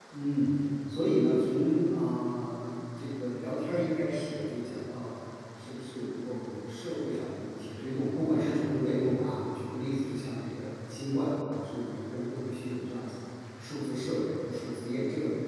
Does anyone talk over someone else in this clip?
No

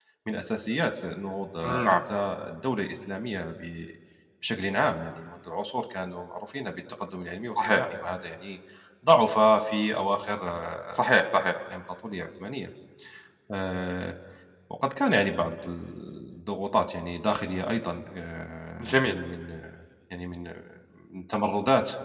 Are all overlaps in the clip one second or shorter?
Yes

